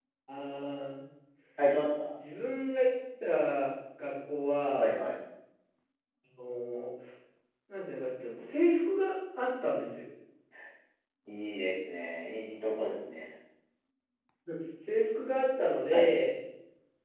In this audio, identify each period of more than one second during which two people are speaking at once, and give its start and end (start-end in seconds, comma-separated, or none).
none